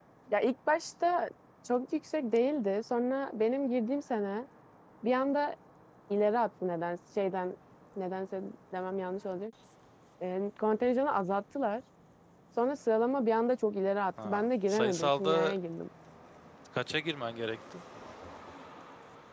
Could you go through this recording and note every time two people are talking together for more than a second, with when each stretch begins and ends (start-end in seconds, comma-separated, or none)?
14.2-15.6